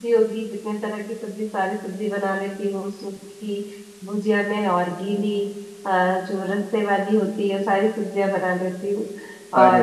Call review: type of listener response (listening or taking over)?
listening